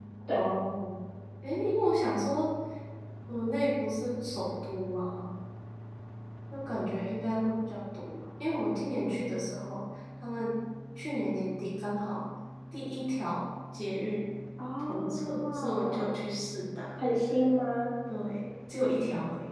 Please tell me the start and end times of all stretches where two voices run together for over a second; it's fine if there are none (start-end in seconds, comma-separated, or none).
14.8-16.2